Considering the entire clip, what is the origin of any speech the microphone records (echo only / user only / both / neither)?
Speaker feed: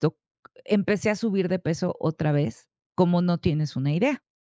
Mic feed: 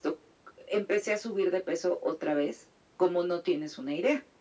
echo only